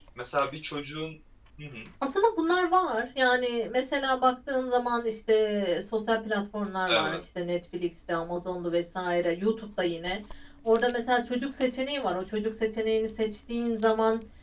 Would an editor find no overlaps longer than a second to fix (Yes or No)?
Yes